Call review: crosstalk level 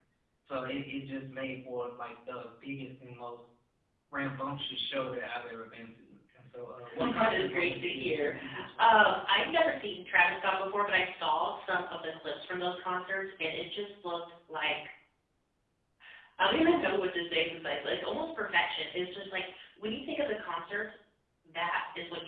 present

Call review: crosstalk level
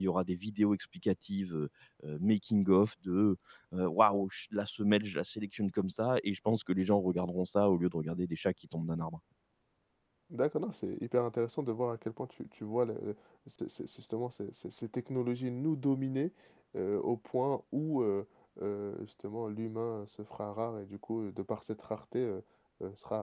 none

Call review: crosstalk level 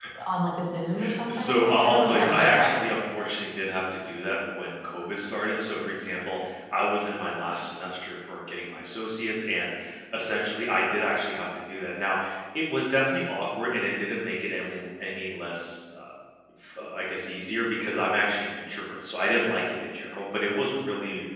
present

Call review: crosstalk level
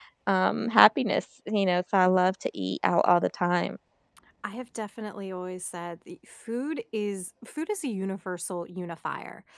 none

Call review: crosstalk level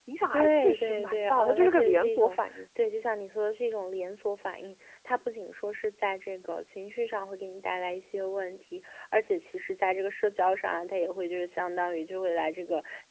present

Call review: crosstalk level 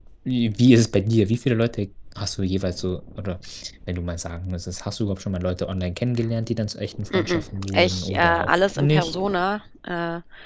present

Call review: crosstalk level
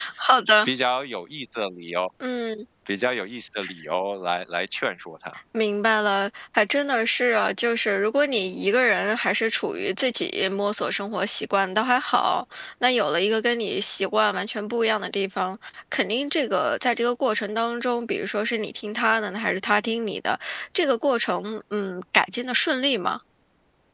none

